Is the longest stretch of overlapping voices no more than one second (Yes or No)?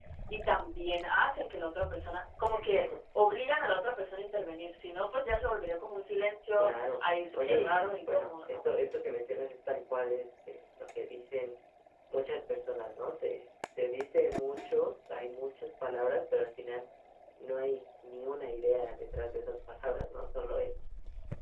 No